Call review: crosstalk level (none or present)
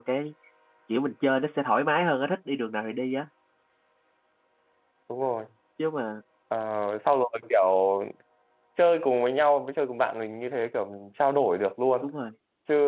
none